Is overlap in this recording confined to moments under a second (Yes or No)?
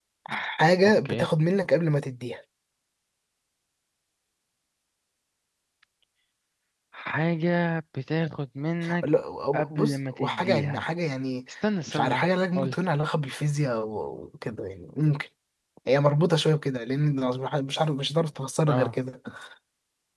No